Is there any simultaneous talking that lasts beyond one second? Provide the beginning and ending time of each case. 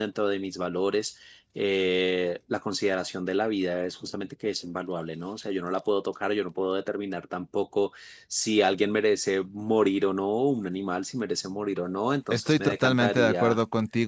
12.3-13.6

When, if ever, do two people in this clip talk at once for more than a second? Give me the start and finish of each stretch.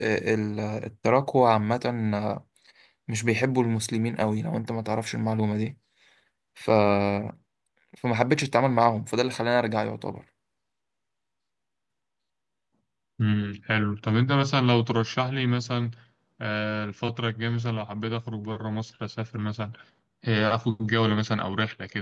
none

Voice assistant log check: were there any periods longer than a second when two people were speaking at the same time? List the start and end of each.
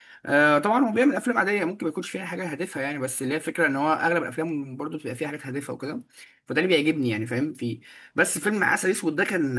none

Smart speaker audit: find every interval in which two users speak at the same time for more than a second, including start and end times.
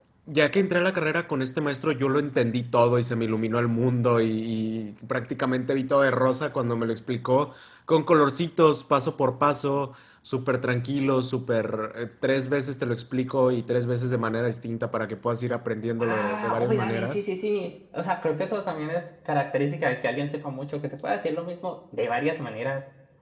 16.0-17.2

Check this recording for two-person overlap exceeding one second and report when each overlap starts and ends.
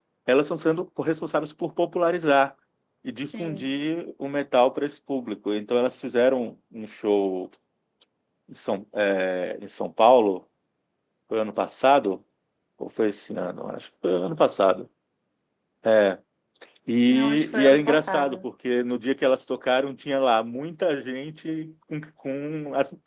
17.1-18.4

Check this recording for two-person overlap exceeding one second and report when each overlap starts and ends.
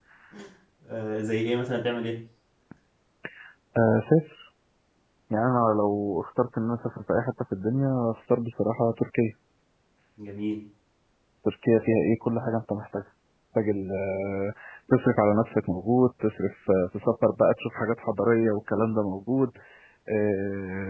none

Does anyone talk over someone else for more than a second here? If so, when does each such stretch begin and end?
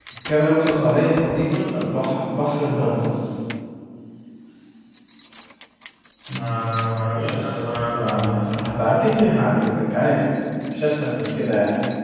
7.1-8.7

